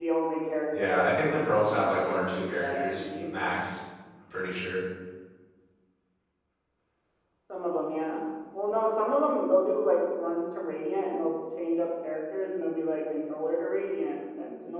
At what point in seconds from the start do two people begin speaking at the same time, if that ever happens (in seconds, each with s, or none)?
0.7 s